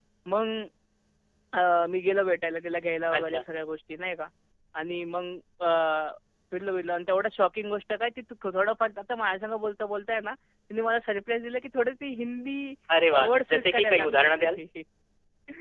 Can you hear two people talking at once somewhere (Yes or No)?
Yes